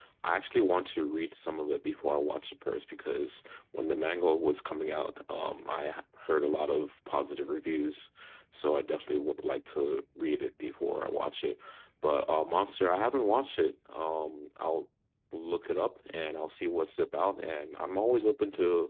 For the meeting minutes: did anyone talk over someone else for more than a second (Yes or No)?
No